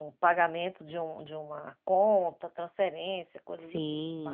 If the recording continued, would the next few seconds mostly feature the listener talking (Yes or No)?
Yes